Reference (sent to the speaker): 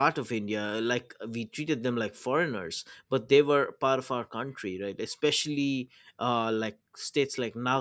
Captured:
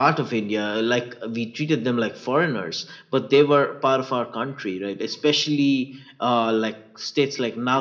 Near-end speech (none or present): none